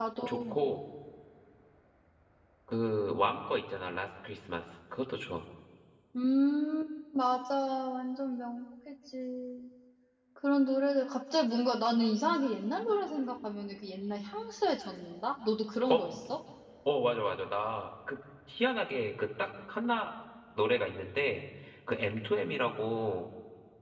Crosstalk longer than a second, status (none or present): none